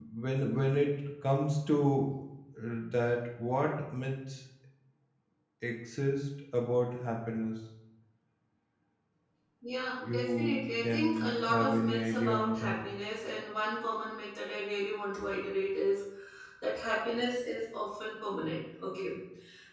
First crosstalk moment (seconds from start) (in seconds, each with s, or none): 10.0 s